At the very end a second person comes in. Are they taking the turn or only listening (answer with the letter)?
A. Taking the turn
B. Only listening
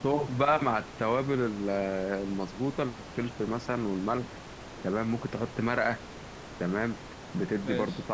B